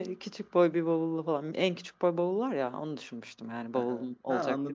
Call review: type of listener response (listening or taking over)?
taking over